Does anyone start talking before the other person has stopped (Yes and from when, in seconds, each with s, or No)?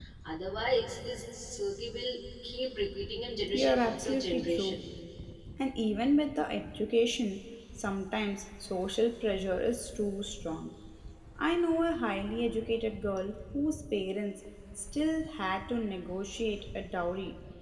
Yes, from 3.5 s